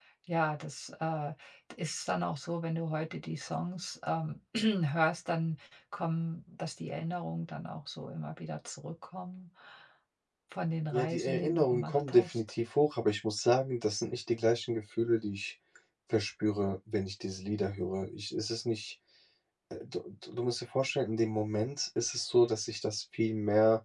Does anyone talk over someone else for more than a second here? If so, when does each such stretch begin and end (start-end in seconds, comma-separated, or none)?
10.9-12.4